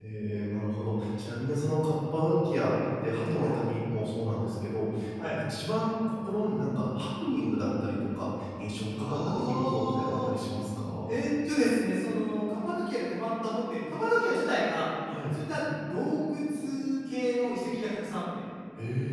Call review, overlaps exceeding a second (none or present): present